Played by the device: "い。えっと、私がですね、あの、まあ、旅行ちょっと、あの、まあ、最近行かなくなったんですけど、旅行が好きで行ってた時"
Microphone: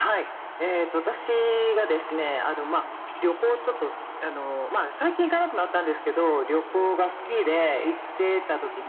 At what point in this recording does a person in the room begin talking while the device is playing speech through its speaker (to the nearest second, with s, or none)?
none